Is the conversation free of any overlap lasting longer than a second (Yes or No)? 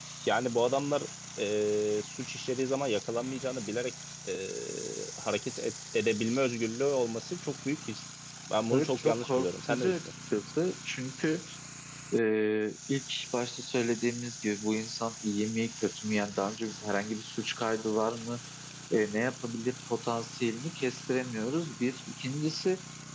No